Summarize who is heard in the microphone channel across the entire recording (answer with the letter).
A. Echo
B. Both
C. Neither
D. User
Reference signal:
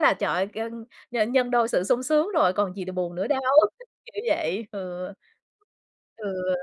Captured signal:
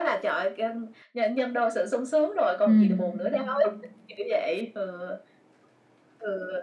B